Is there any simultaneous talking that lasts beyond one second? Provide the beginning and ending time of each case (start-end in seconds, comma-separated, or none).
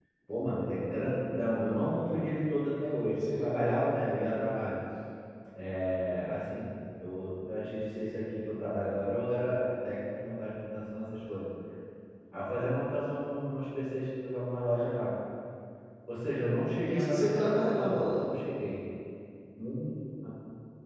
16.9-18.2